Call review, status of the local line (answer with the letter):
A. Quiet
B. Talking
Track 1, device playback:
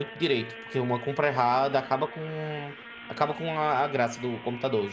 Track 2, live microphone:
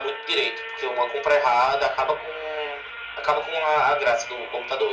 A